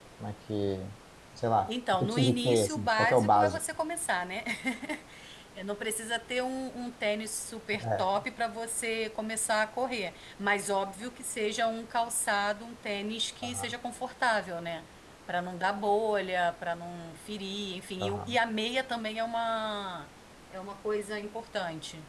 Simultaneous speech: Yes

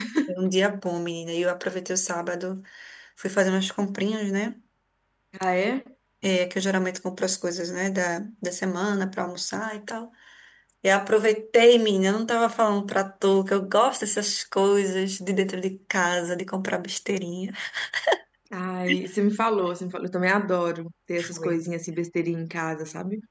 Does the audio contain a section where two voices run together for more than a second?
No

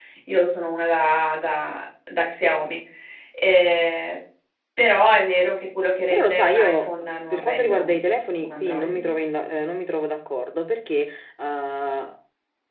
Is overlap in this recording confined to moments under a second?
No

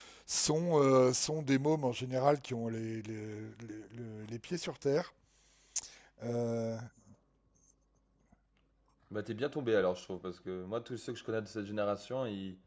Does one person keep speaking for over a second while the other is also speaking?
No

